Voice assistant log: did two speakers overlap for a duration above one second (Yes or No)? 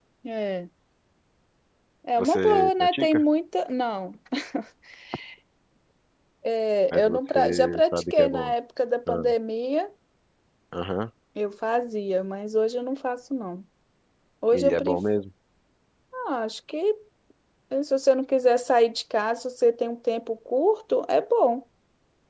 Yes